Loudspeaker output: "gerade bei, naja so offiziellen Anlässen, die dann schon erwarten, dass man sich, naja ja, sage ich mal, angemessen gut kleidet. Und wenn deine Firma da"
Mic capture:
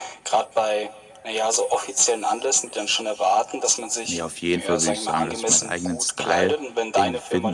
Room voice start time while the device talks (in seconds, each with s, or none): 4.1 s